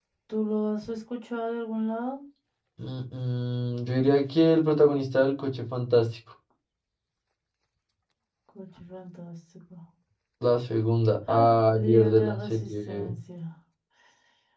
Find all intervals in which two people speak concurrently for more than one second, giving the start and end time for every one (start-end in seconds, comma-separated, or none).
11.3-13.0